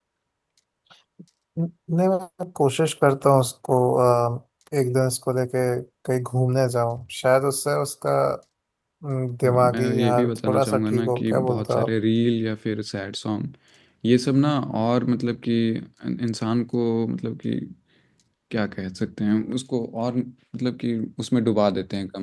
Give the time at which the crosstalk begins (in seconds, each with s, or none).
9.4 s